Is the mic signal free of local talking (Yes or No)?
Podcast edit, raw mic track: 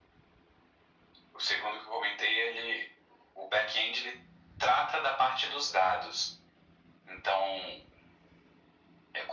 Yes